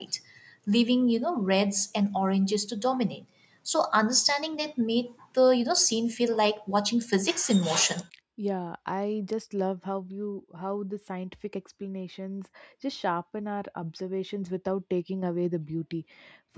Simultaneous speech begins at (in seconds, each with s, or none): none